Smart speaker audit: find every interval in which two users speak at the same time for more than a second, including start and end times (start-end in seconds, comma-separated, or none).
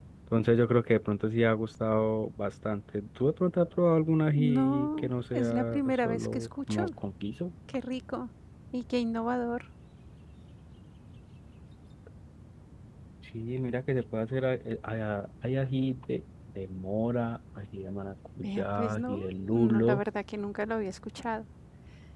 4.3-6.9, 18.4-20.0